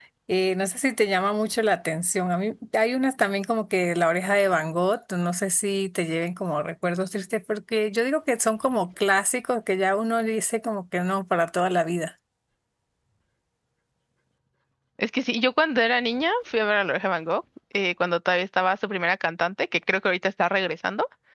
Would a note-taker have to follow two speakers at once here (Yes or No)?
No